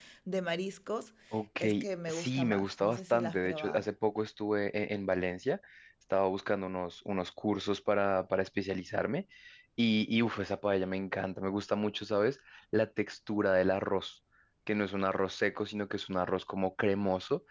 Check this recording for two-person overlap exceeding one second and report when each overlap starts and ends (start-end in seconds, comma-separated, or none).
2.1-3.8